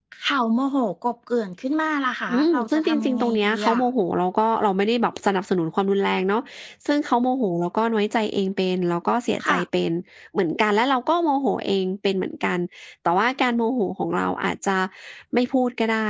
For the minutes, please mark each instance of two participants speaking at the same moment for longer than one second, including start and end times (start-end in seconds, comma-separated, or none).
2.3-3.8